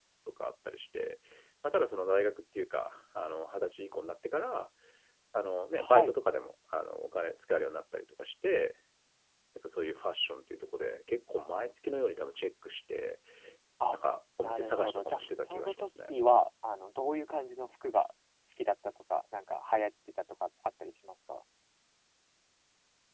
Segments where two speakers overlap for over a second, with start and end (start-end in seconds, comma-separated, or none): 14.4-16.1